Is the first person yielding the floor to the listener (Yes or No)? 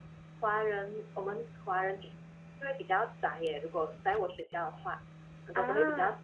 No